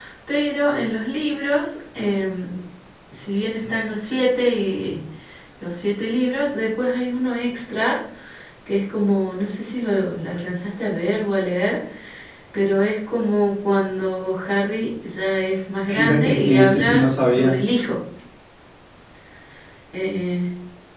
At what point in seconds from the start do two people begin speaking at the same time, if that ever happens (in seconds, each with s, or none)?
15.8 s